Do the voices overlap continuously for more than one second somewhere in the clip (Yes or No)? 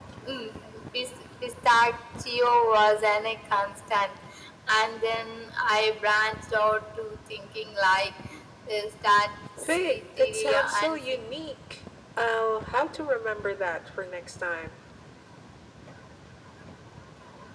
Yes